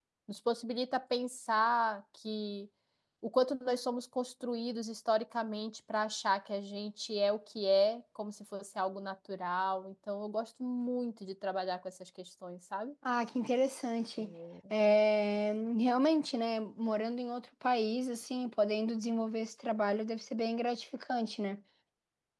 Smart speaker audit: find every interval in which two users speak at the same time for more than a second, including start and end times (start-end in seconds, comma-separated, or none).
none